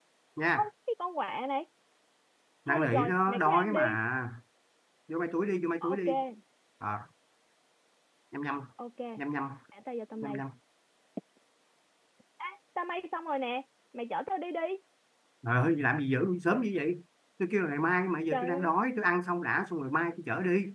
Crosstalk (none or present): present